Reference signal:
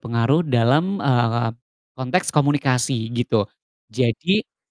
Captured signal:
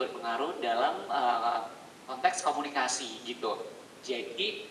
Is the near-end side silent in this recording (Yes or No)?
Yes